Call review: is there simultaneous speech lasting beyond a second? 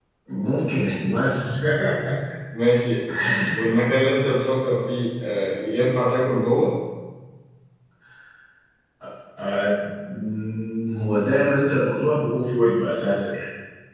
No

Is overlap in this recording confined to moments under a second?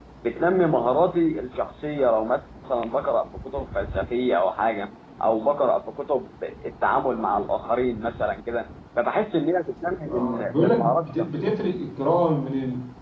No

